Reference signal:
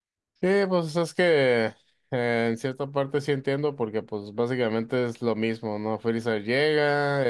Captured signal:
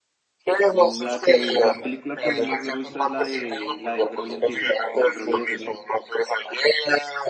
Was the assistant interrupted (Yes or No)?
Yes